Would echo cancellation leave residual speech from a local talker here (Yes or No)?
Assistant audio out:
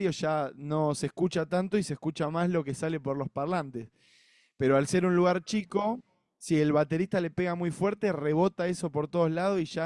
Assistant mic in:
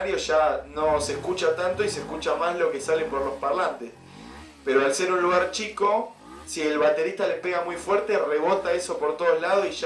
No